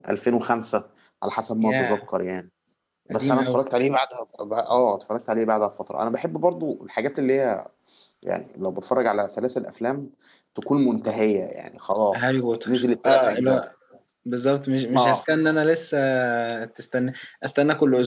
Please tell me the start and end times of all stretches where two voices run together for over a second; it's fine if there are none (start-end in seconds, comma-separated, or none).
12.1-13.6